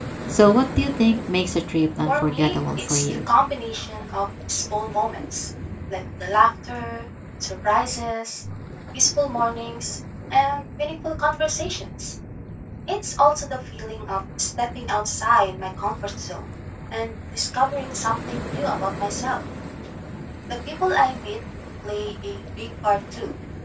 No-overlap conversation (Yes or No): No